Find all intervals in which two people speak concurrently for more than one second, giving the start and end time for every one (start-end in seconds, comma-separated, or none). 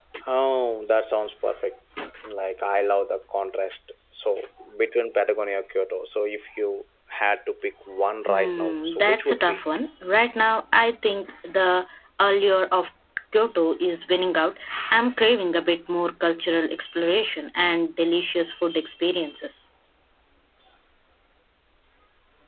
8.3-9.6